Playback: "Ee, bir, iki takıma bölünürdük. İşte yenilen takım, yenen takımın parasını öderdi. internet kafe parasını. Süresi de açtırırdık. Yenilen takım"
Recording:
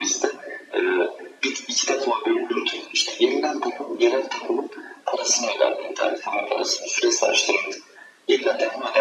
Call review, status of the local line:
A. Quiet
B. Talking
A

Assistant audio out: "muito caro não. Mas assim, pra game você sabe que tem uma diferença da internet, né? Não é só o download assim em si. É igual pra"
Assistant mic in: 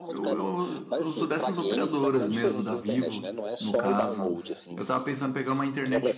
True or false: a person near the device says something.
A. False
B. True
B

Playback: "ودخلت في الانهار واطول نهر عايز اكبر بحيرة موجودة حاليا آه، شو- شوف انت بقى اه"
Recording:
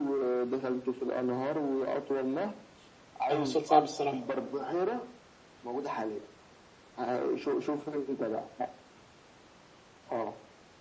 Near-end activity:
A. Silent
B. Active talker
B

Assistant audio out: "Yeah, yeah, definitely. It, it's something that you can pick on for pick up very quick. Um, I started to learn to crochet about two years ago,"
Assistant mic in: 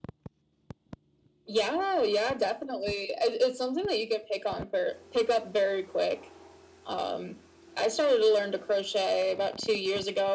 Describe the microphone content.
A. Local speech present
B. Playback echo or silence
B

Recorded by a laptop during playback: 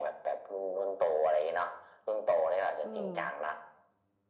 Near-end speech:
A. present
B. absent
A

